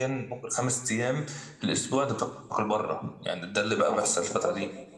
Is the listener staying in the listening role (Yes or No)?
No